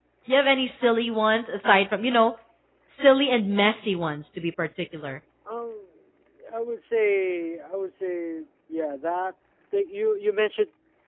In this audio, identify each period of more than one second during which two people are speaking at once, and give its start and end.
none

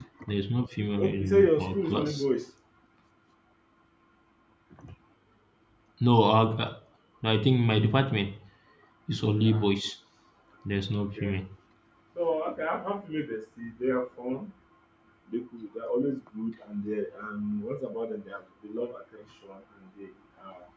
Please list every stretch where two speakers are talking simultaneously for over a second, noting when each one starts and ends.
1.0-2.2

